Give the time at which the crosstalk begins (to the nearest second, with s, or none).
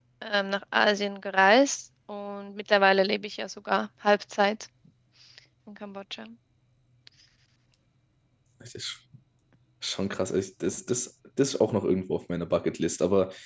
none